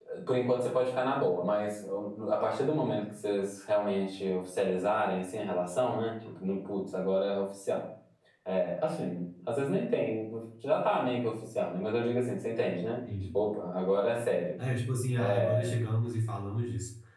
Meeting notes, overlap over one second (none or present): none